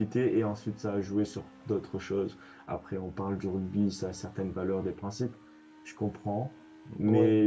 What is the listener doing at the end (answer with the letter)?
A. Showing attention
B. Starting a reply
A